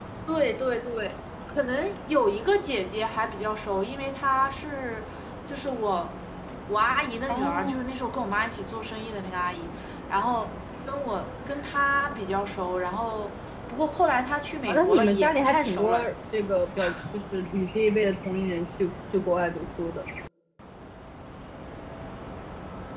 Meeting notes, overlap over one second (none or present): present